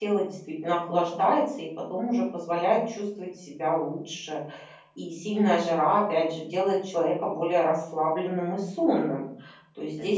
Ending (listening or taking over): listening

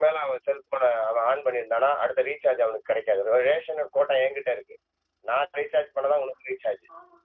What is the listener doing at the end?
taking over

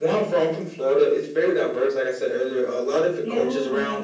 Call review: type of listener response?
listening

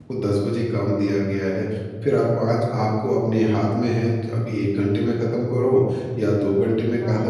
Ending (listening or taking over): listening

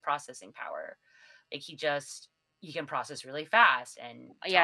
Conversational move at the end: taking over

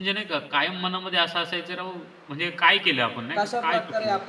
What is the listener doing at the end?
taking over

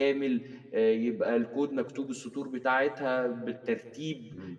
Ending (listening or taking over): taking over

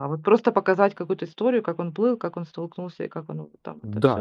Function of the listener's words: taking over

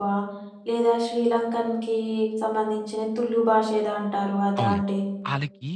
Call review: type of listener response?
taking over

